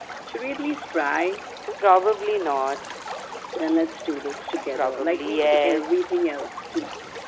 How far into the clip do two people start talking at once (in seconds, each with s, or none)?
4.8 s